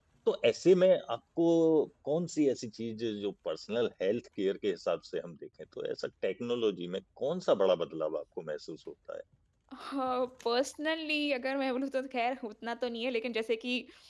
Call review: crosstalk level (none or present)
none